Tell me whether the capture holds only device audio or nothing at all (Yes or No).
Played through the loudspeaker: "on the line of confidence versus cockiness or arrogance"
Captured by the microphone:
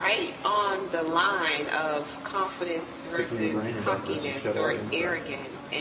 No